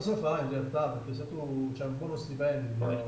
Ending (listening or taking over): listening